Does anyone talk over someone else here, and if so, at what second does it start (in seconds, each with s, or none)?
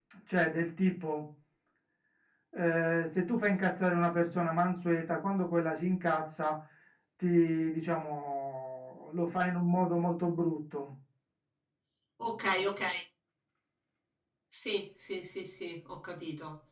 none